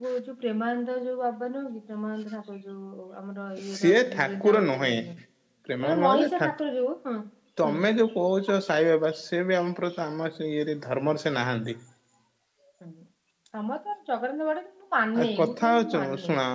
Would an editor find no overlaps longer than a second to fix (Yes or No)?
No